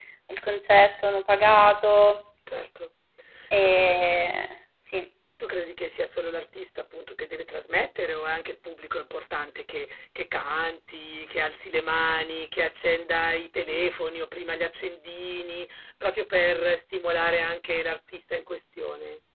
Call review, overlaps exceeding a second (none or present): none